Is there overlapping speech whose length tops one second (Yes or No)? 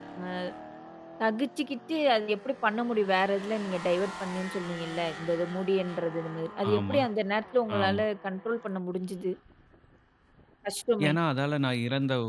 No